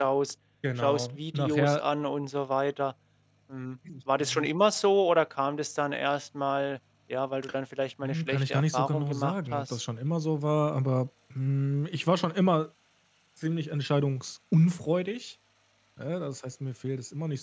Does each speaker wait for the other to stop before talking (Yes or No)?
No